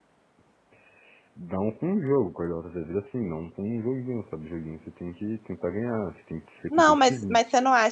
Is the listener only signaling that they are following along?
No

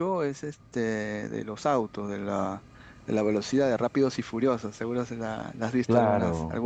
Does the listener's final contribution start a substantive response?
Yes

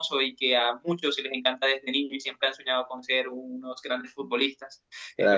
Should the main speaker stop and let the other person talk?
No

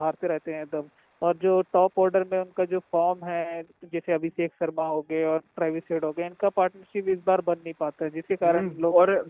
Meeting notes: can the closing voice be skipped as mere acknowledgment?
No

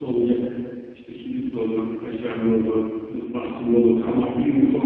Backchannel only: Yes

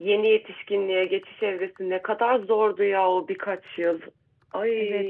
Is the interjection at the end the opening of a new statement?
Yes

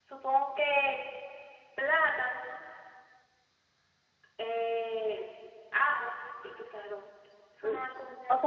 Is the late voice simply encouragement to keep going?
No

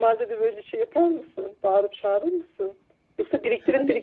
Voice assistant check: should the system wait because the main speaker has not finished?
Yes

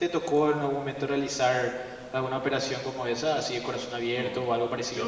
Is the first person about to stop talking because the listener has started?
Yes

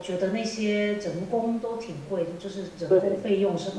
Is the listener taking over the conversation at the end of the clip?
No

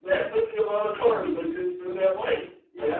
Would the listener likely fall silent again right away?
No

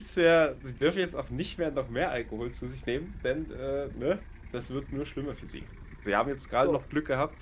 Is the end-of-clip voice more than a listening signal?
No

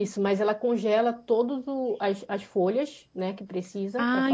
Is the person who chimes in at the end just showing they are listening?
No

